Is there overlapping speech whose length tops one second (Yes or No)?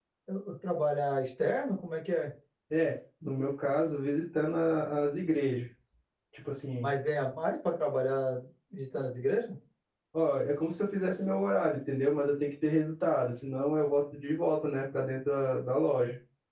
No